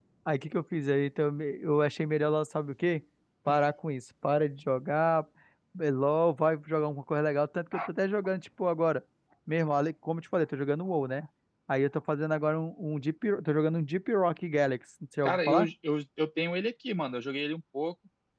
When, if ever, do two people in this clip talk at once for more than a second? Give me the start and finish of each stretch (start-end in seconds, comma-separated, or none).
none